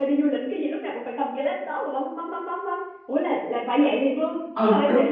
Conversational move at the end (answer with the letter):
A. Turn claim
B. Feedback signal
A